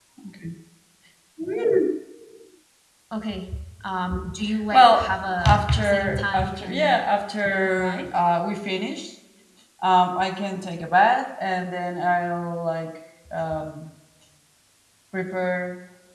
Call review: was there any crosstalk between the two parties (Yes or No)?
Yes